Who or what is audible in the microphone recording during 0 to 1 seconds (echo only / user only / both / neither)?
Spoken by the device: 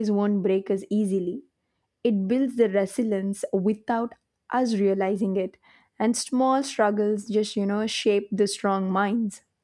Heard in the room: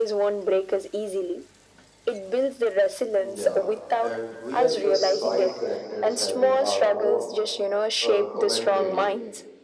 echo only